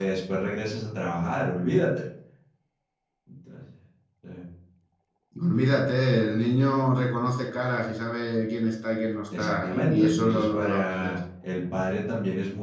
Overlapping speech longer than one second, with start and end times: 9.4-11.1

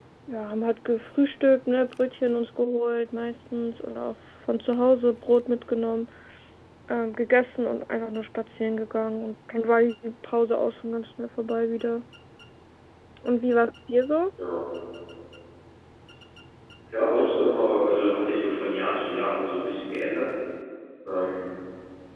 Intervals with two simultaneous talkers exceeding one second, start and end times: none

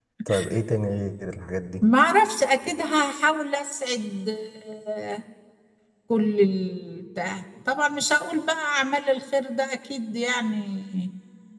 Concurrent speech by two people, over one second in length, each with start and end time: none

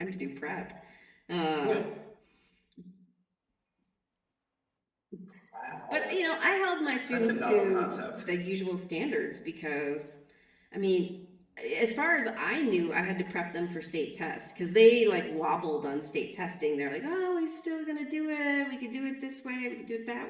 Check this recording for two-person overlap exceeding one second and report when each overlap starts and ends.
7.0-8.2

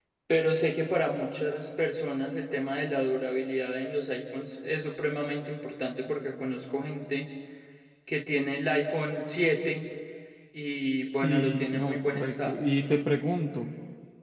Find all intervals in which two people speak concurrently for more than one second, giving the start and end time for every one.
11.2-12.6

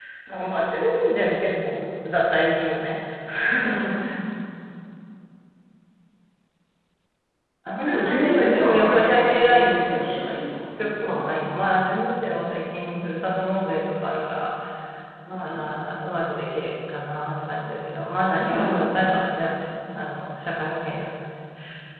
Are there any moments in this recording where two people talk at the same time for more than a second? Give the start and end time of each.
7.8-10.2

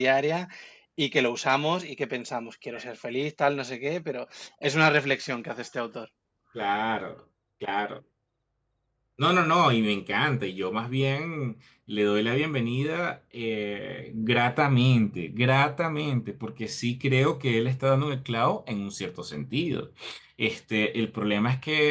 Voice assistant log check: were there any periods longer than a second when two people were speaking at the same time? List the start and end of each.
none

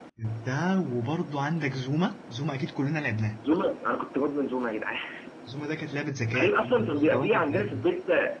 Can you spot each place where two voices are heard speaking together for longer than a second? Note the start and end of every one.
6.3-7.7

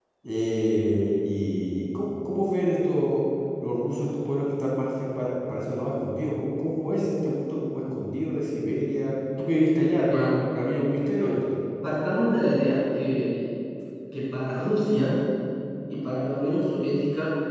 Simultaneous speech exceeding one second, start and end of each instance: none

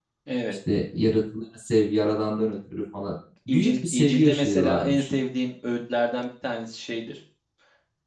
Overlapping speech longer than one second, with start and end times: 3.5-5.1

